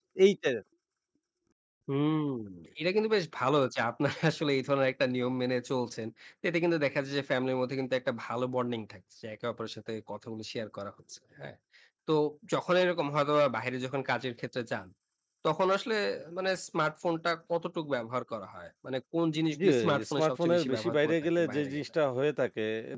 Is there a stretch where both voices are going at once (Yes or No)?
Yes